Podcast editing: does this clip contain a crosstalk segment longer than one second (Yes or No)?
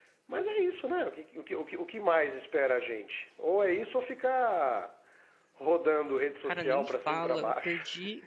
Yes